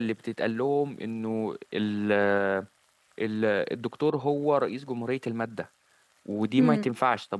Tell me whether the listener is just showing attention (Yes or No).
Yes